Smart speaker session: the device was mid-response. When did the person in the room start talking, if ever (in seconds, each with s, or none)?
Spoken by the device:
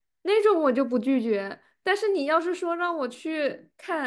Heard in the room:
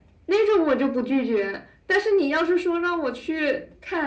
none